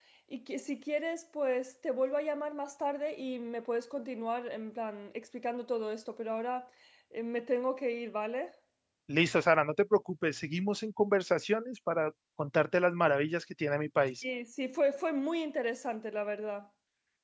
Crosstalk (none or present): none